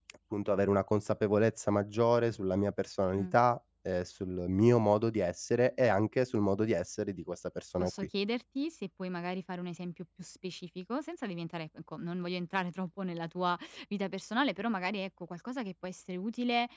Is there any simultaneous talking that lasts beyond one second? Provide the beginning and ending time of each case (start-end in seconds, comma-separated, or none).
none